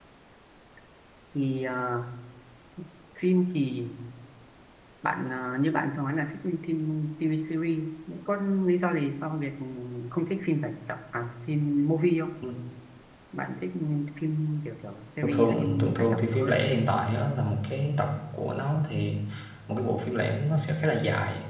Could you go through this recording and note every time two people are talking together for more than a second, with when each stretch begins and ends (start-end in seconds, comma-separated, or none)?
15.2-16.6